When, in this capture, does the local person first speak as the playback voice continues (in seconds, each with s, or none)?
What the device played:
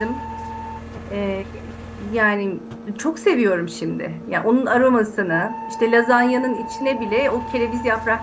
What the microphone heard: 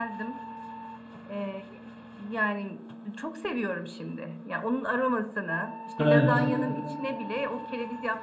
6.0 s